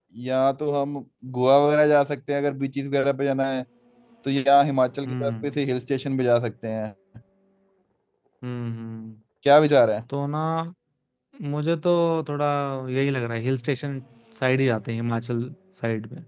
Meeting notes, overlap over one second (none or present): none